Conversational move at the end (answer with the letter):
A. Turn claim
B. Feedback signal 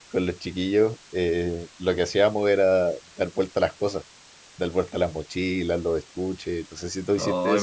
A